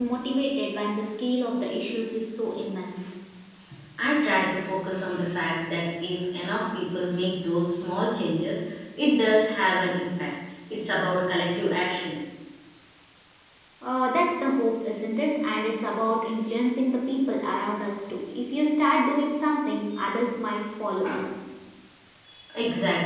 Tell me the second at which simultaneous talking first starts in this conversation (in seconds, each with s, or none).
none